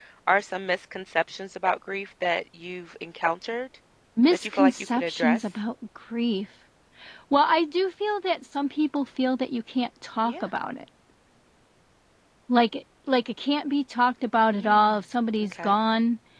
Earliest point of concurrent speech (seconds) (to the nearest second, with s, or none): 4 s